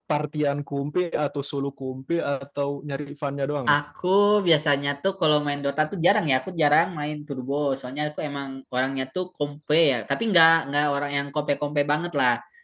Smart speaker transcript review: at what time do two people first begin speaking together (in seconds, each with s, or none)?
none